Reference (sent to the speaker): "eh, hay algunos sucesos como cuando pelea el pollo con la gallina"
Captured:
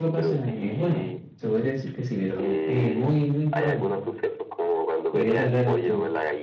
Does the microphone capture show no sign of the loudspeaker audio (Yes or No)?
No